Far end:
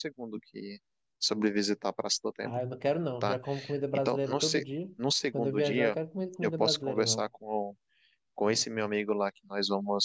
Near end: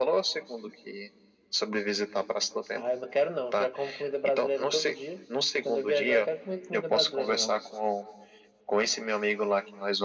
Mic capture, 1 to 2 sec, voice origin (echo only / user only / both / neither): echo only